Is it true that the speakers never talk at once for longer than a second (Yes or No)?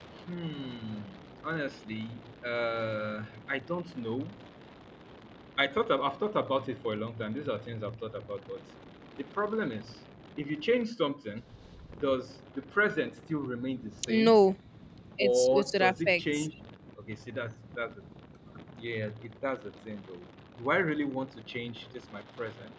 No